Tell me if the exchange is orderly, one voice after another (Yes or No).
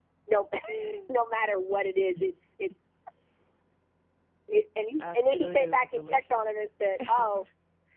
No